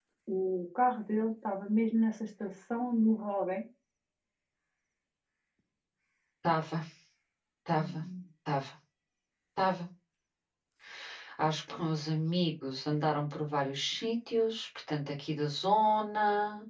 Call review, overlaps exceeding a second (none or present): none